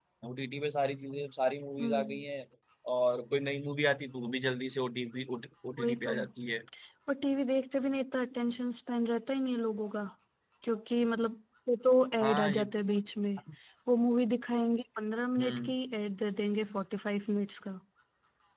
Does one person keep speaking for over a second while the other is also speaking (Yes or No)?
No